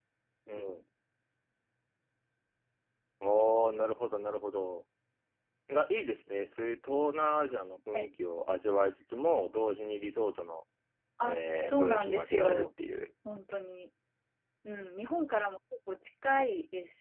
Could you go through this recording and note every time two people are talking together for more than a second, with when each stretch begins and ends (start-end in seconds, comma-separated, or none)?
11.2-12.7